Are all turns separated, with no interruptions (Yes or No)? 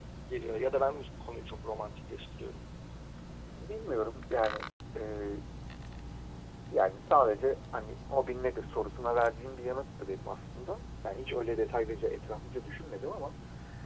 Yes